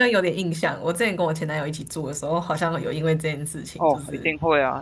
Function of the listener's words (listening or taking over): taking over